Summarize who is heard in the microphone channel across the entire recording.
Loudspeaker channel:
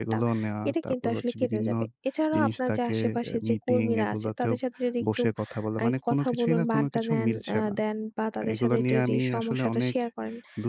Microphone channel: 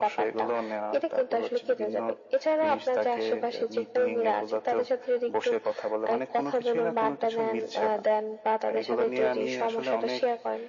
echo only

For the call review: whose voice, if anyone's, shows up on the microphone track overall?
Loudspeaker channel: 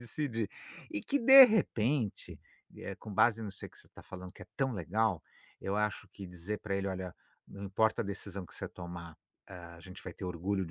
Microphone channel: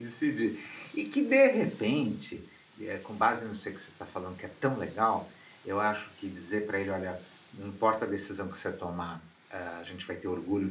echo only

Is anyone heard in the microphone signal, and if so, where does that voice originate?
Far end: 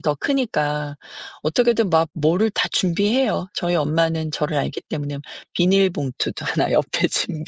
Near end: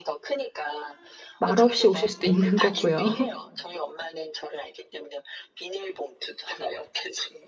both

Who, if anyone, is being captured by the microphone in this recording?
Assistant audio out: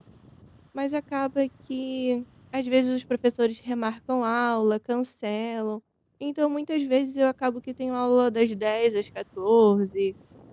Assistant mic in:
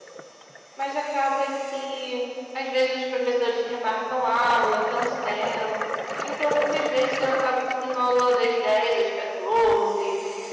echo only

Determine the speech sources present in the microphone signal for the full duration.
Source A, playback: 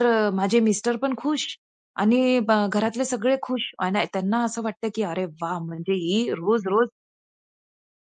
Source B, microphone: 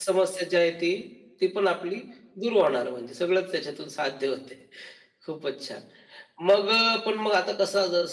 user only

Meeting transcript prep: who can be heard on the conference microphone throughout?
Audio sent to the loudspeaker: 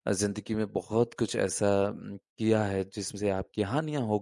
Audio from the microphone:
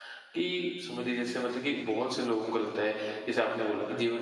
user only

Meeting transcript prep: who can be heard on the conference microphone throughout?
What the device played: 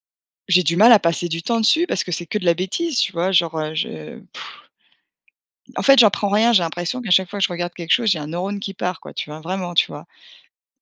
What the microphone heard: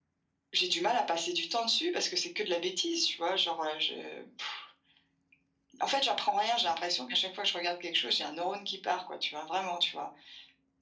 echo only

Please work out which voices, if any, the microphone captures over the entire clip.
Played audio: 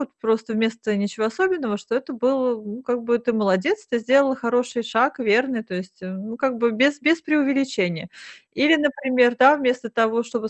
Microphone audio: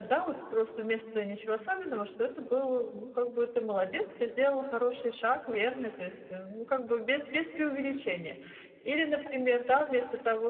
echo only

